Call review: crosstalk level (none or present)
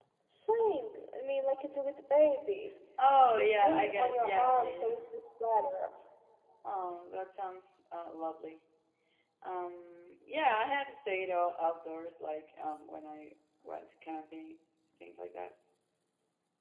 present